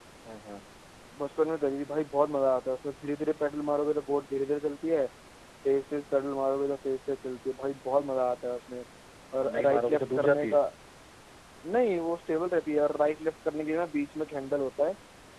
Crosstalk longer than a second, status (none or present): present